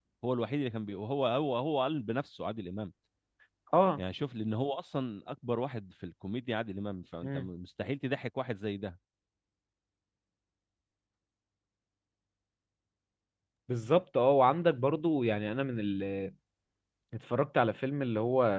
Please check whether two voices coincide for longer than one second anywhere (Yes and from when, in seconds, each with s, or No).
No